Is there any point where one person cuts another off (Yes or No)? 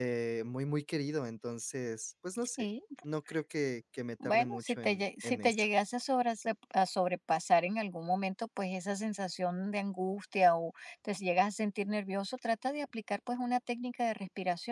Yes